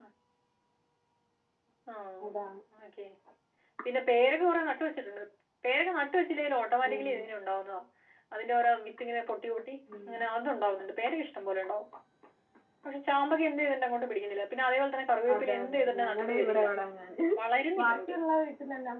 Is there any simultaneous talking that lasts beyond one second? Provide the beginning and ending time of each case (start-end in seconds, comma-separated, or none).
15.3-16.6